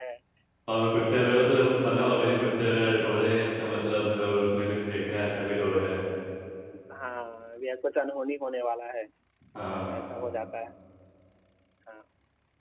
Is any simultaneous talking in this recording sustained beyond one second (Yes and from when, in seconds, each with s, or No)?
No